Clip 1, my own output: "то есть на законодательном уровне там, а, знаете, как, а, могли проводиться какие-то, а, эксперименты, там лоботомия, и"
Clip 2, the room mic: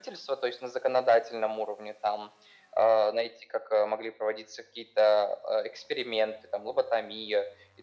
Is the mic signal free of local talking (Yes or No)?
Yes